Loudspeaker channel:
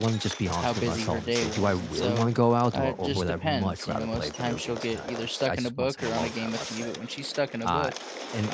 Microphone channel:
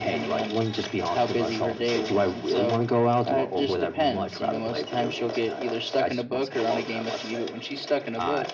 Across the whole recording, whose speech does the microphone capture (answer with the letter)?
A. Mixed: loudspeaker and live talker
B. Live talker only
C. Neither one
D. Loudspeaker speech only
D